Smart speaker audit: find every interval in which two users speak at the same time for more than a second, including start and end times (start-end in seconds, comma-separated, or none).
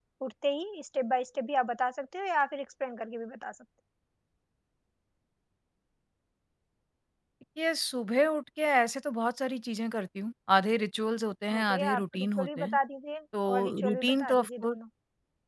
11.5-12.8, 13.5-14.8